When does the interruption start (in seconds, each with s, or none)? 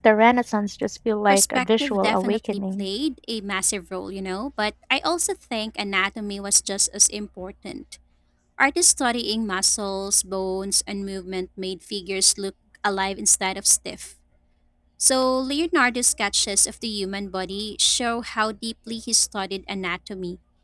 1.3 s